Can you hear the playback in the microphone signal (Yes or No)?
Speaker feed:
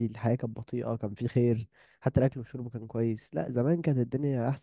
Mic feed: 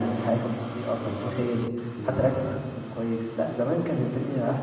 Yes